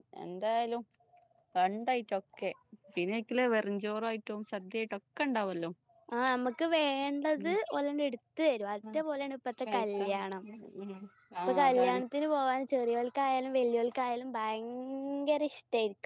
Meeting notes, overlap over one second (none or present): none